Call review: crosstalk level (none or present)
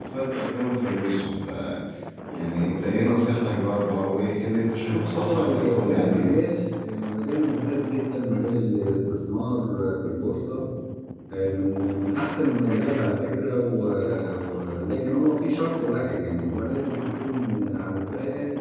present